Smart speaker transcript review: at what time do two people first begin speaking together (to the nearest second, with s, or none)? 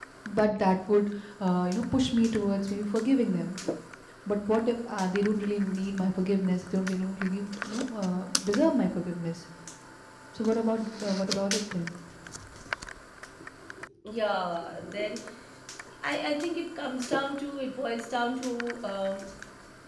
none